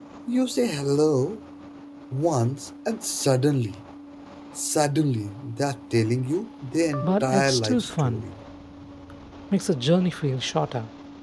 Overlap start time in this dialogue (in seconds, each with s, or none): 7.0 s